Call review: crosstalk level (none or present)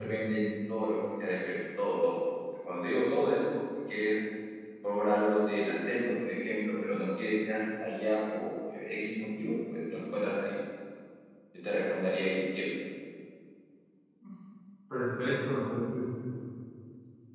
none